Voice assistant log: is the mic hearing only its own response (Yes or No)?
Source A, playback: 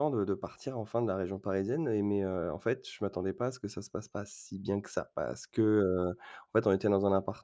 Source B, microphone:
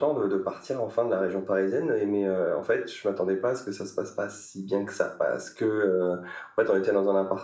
Yes